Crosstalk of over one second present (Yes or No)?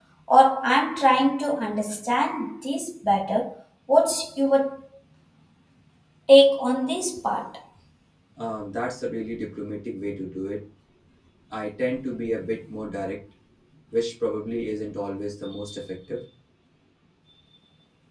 No